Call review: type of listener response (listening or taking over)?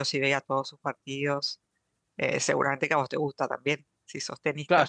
taking over